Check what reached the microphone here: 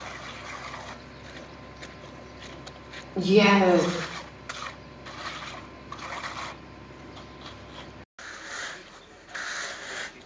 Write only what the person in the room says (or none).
Yes.